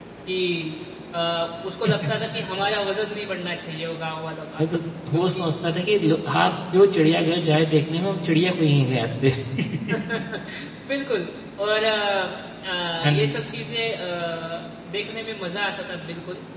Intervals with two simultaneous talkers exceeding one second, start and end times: none

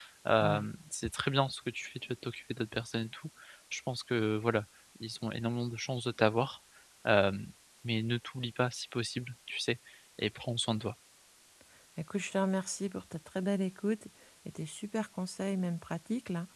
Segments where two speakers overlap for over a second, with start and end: none

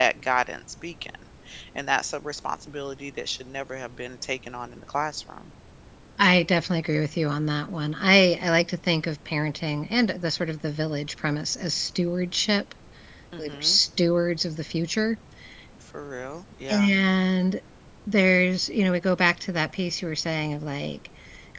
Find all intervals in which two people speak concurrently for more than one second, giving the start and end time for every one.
none

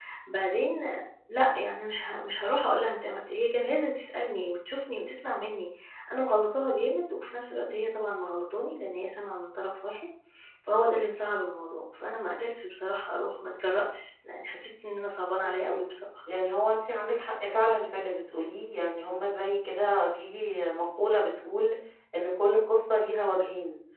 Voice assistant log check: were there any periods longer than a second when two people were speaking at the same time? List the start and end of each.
none

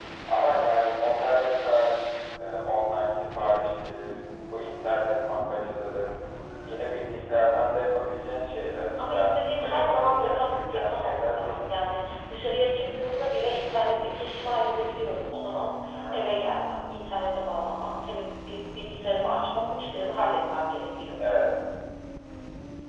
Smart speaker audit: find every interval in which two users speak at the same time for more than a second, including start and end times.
9.0-11.6

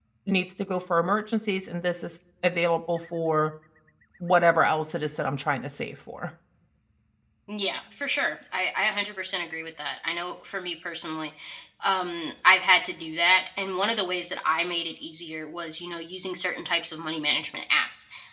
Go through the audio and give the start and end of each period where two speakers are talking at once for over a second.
none

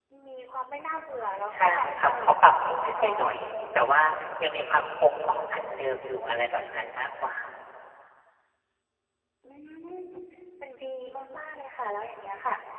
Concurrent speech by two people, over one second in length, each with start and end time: 1.5-3.2

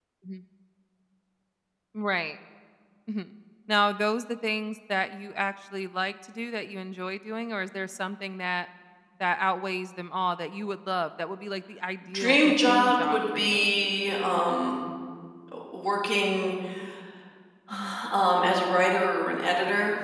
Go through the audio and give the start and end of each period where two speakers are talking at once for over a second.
12.1-13.7

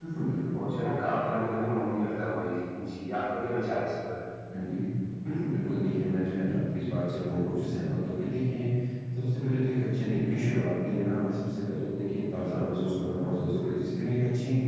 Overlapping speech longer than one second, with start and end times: none

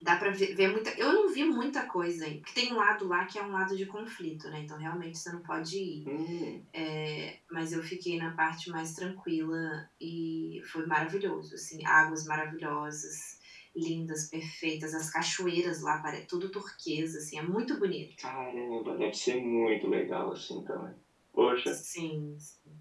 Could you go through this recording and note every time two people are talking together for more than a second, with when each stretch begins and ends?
none

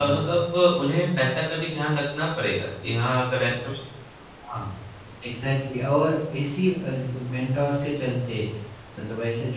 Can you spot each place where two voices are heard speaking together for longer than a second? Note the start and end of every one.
none

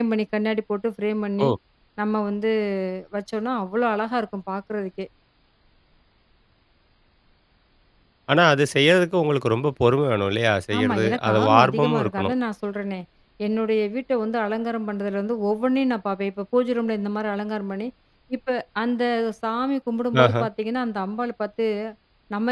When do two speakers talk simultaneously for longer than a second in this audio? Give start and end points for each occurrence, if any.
10.8-12.3

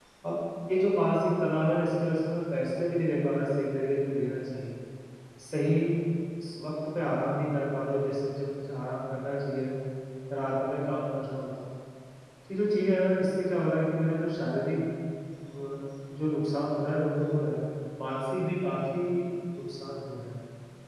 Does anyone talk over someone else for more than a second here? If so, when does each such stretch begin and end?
none

